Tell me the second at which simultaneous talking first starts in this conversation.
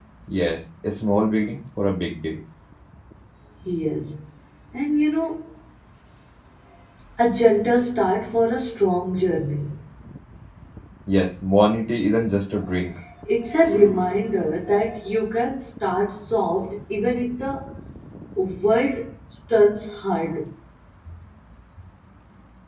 none

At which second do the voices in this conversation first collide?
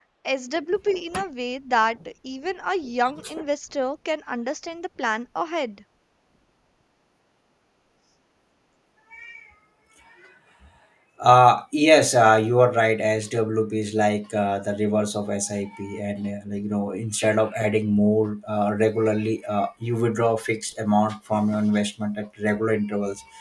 none

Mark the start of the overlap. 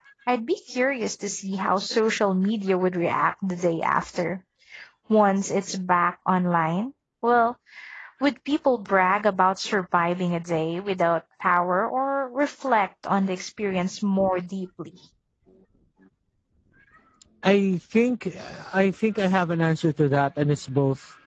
none

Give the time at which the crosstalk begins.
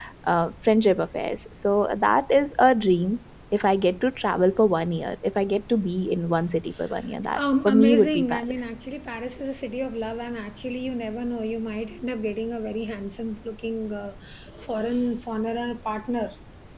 7 s

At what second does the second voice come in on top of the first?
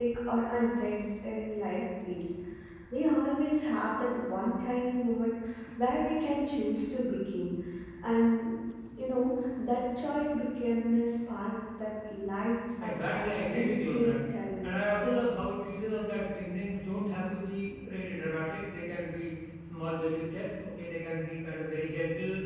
13 s

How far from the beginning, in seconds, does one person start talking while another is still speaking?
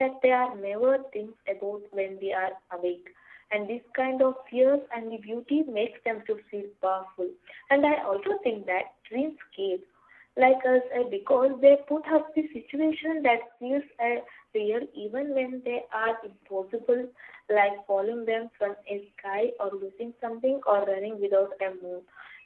none

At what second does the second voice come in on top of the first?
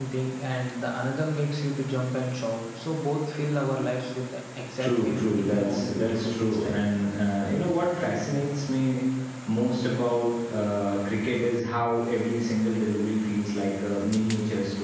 5 s

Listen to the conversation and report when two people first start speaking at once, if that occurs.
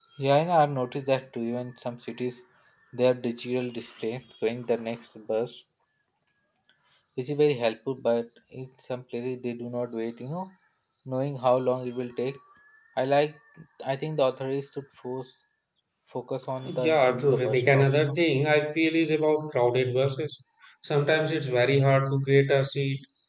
17 s

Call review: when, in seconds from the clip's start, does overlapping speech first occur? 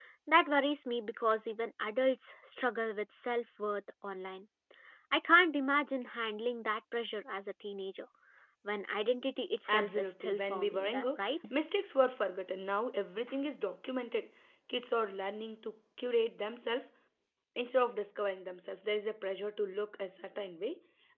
10 s

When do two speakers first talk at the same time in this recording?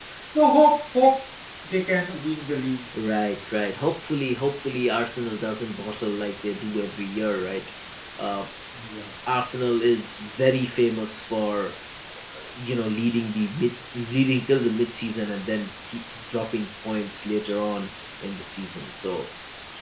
none

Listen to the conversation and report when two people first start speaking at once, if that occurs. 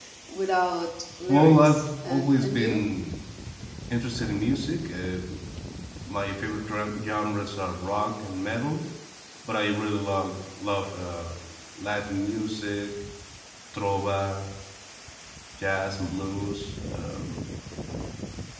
1 s

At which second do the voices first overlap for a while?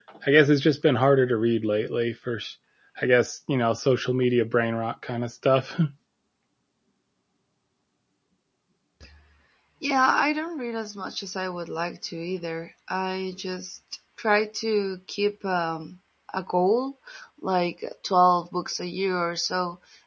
none

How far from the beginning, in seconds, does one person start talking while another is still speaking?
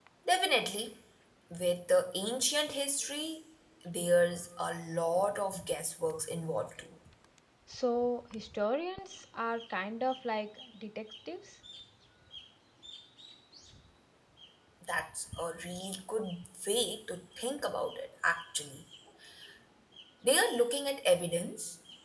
none

